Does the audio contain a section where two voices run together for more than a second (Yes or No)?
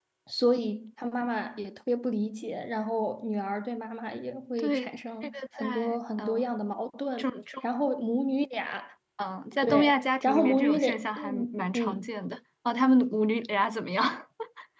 Yes